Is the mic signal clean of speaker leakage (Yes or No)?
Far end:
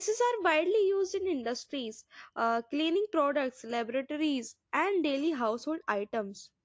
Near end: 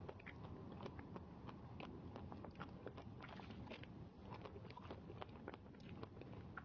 Yes